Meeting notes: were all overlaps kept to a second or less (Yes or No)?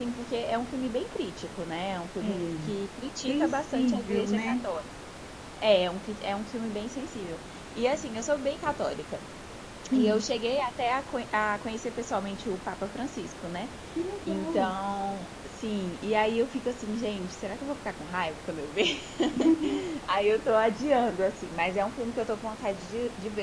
No